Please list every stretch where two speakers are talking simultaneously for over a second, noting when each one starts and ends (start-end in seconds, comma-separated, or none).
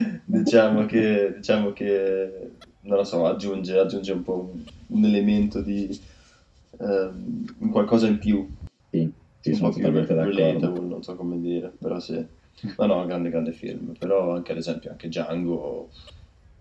9.5-10.7